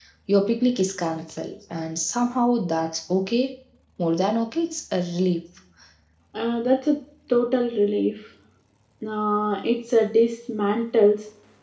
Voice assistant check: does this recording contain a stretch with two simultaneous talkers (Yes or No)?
No